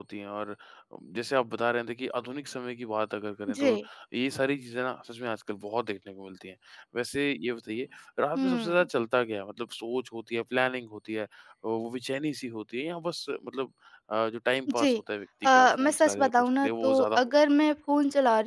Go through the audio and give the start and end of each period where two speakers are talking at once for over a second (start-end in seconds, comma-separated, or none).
15.6-17.3